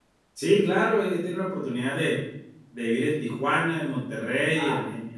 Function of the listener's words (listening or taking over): taking over